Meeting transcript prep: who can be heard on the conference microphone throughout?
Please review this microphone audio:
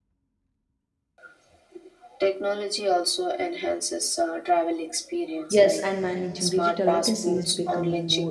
both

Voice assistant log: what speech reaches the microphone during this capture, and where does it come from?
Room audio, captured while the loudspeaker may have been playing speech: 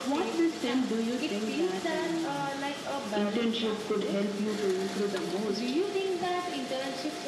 echo only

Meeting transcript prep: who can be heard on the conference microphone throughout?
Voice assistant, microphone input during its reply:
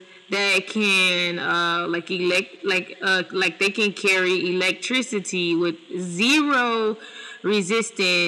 echo only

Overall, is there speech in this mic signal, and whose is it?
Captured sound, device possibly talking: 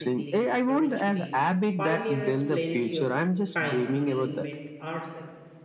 both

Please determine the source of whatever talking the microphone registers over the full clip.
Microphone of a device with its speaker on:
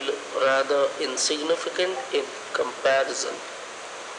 echo only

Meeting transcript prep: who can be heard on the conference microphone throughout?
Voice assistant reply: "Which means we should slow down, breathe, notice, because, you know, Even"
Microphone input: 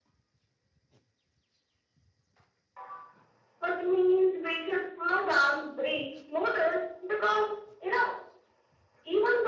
echo only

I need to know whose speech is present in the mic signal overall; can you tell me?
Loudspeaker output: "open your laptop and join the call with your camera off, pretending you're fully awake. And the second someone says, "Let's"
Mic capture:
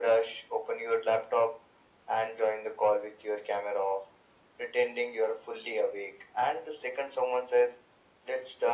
echo only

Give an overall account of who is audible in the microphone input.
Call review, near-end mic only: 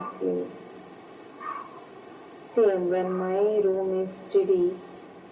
echo only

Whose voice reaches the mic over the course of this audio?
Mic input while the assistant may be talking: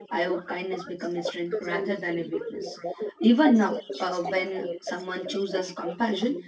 both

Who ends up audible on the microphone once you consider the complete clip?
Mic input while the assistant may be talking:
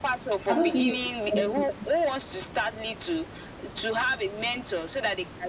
both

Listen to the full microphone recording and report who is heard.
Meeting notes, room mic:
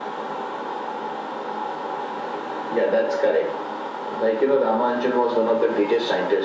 echo only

